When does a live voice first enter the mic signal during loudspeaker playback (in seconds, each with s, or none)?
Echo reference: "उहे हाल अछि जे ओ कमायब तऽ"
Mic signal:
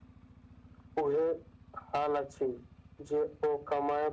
none